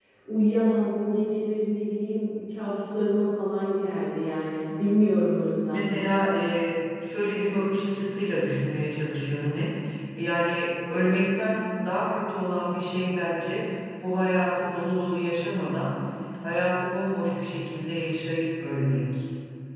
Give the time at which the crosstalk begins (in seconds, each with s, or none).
none